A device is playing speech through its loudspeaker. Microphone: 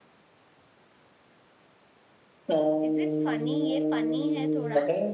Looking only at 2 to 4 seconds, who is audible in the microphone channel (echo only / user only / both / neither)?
both